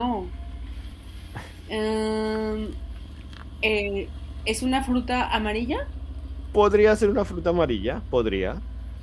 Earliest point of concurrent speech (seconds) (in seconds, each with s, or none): none